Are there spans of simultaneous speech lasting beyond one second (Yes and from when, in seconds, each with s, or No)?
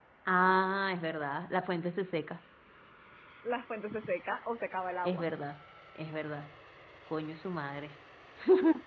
No